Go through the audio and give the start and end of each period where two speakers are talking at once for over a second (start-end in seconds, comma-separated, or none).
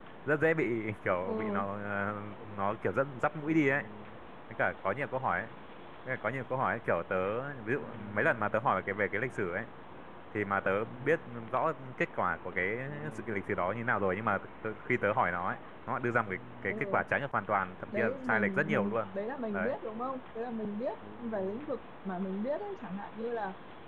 17.9-19.1